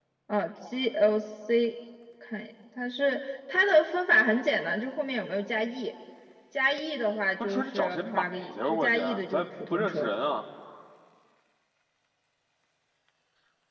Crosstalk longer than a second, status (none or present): present